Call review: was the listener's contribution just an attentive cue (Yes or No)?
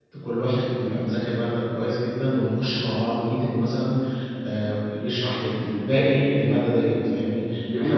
No